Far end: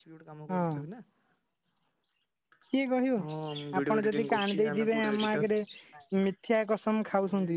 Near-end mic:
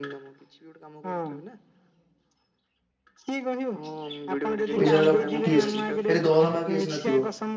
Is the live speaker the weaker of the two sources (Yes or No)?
No